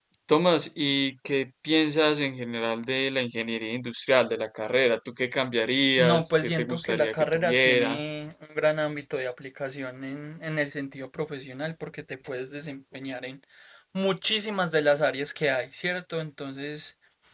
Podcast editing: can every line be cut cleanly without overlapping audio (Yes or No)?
No